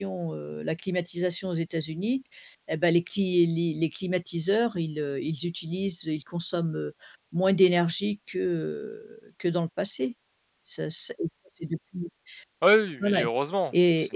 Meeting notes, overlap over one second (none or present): none